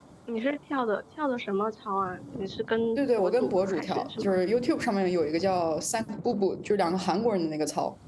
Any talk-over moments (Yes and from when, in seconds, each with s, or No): Yes, from 3.0 s